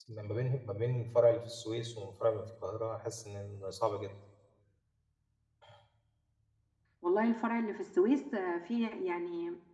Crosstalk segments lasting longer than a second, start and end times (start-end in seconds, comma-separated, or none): none